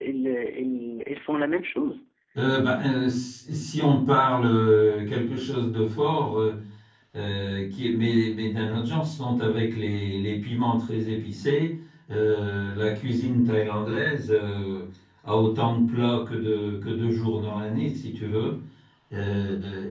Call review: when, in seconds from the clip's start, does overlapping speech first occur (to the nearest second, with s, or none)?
none